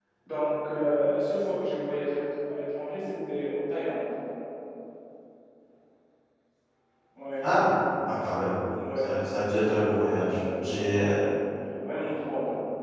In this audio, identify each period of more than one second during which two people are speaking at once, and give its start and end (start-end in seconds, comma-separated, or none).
9.7-11.1